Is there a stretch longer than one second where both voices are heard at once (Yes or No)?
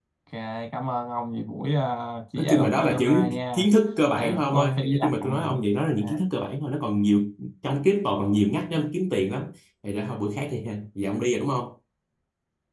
Yes